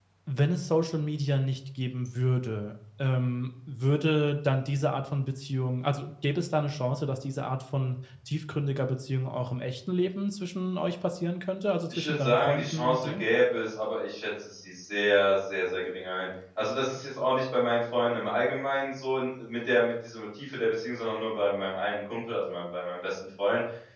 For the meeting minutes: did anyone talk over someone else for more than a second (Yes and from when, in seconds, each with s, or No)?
Yes, from 11.9 s